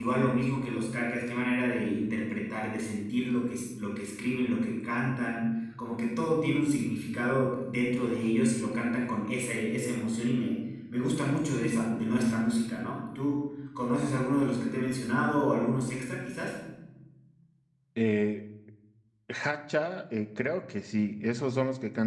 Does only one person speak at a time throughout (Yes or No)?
Yes